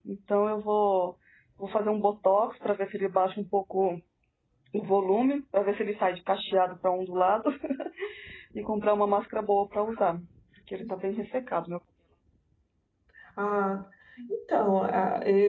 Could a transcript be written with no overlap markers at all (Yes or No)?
Yes